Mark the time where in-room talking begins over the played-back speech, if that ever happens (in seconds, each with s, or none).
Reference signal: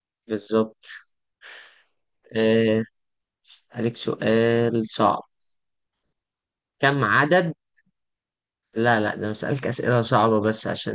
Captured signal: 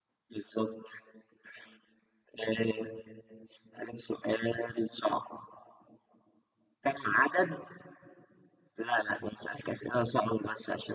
none